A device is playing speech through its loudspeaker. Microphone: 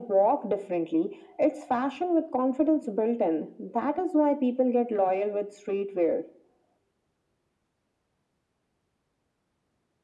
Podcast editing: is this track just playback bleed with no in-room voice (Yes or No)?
Yes